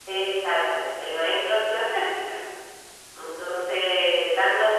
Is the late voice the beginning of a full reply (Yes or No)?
No